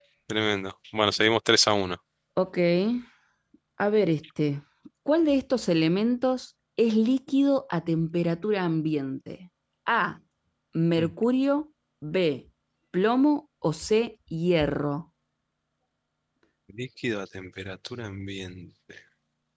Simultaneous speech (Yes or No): No